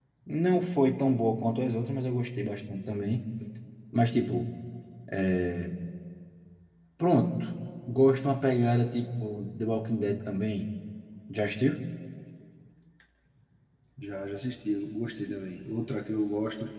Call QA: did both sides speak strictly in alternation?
Yes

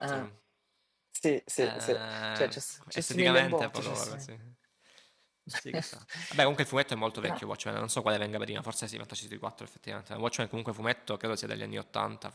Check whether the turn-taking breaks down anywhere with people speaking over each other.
Yes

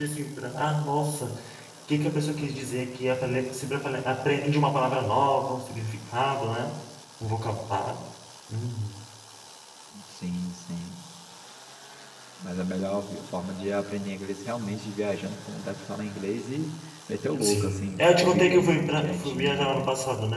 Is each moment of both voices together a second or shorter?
No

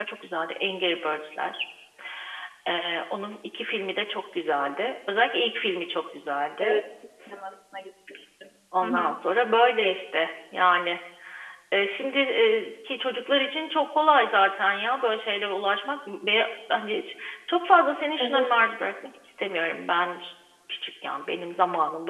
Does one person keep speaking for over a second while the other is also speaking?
No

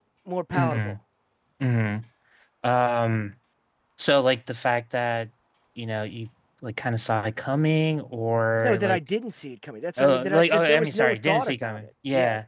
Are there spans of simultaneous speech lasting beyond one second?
Yes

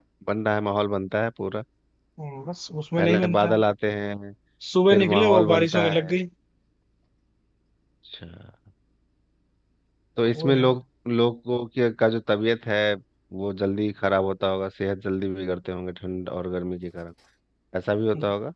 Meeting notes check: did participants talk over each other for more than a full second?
Yes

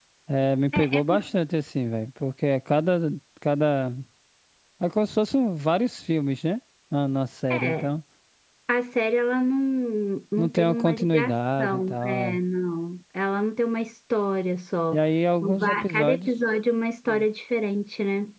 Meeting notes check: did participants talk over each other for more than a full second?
Yes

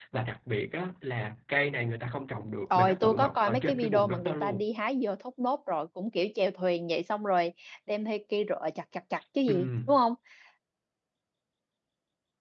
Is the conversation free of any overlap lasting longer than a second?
No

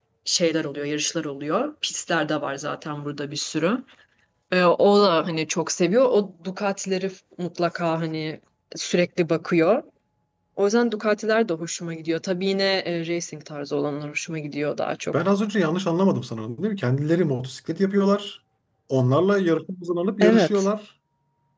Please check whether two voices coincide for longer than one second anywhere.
No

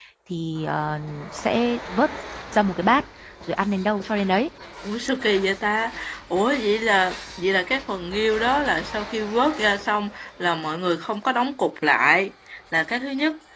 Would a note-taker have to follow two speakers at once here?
No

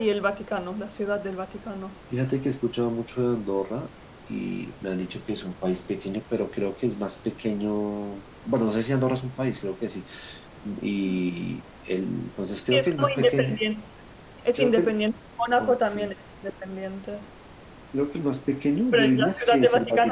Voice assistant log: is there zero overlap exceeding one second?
No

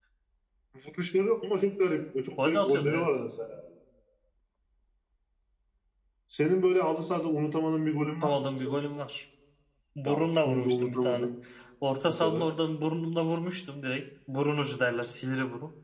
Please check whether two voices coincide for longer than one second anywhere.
Yes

